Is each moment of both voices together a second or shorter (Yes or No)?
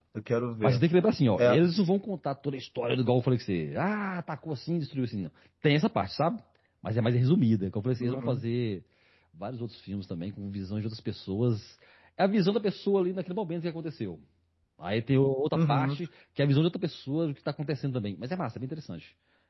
Yes